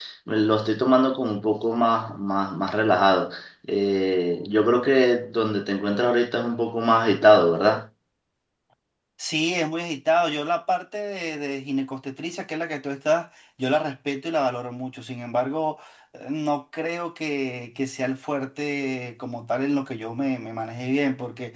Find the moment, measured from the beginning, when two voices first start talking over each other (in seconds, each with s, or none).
none